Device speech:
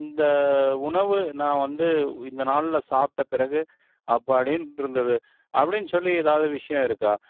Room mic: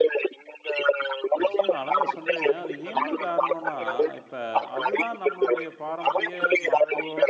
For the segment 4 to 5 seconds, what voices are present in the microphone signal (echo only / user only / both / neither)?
both